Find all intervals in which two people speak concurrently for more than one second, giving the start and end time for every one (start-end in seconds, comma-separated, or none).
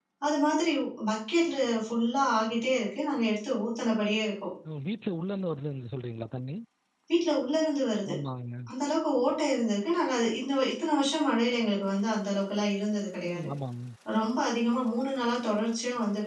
none